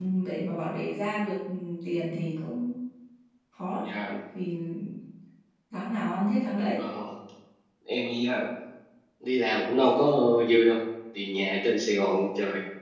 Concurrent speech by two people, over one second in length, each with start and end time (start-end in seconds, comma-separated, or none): none